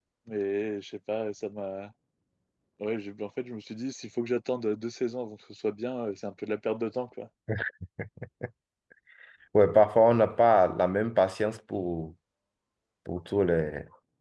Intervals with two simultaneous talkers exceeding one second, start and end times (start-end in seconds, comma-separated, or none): none